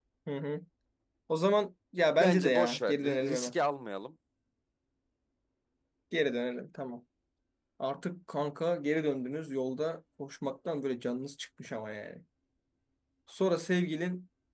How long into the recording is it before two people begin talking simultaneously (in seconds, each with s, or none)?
2.2 s